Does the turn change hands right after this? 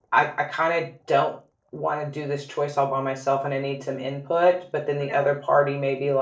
No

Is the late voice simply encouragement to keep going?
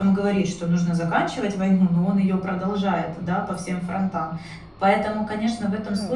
Yes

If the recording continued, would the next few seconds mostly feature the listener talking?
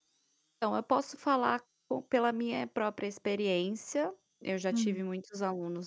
No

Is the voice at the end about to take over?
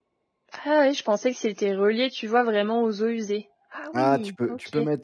Yes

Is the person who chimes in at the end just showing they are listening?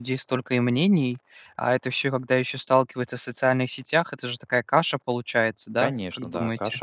No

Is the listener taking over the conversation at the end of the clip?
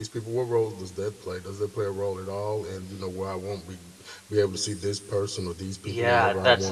Yes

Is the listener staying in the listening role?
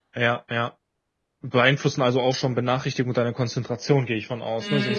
No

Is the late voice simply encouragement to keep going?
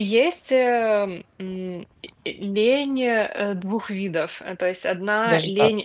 Yes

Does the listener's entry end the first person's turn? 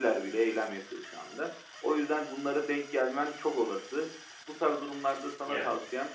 No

